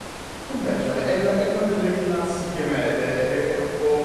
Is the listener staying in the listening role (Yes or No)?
Yes